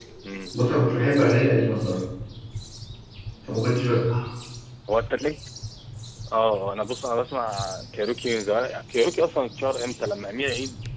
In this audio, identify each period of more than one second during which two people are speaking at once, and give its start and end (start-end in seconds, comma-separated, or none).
none